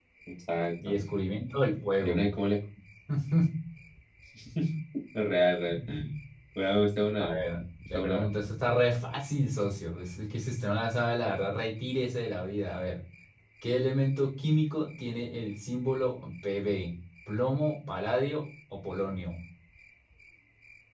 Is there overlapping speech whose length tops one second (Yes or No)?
No